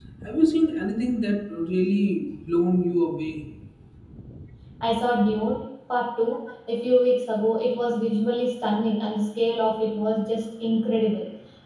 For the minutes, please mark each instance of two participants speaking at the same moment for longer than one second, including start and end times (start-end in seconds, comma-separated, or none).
none